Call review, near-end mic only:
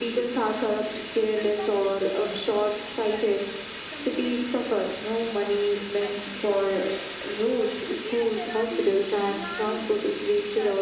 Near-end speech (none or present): present